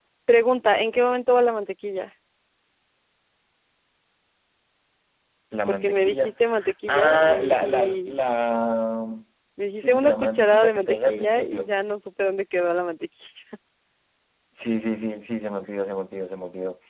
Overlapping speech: Yes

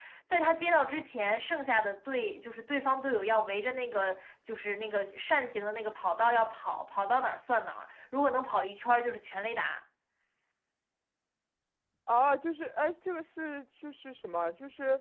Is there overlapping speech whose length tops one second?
No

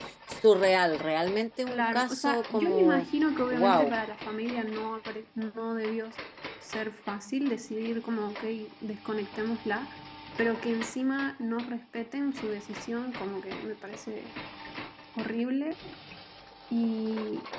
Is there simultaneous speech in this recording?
Yes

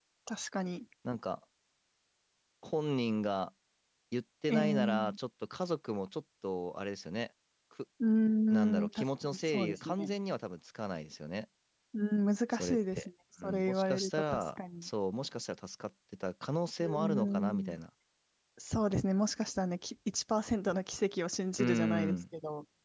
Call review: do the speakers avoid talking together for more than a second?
No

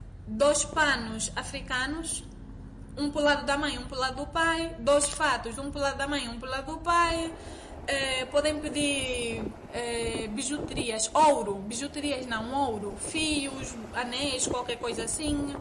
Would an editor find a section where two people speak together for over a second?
No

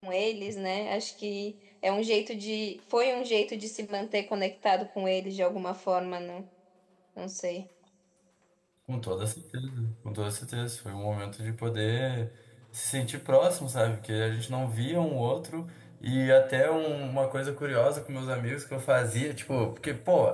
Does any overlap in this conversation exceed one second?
No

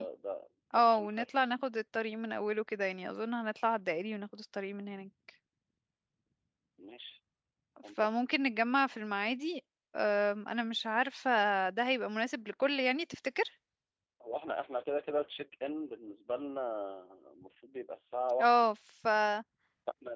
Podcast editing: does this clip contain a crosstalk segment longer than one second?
No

